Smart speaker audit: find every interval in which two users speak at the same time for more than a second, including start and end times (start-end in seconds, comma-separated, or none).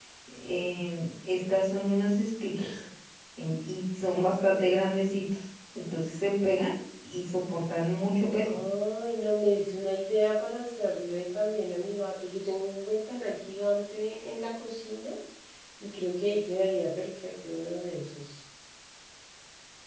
none